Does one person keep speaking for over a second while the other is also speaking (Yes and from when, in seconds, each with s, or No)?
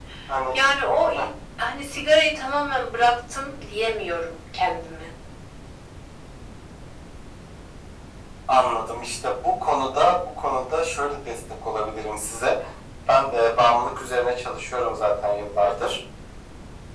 No